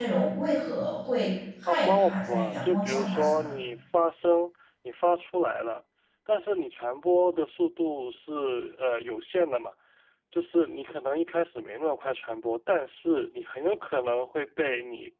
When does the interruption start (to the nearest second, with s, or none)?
2 s